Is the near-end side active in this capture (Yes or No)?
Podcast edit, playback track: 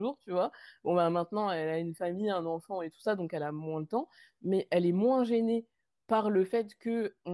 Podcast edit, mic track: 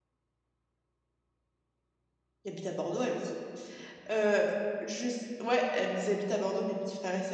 Yes